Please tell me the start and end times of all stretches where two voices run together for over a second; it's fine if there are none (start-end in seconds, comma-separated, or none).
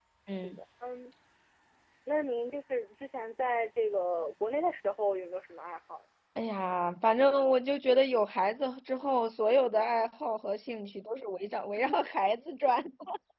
none